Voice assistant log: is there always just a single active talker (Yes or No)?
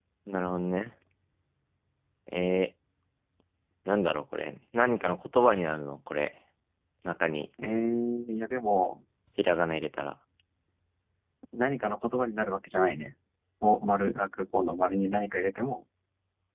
Yes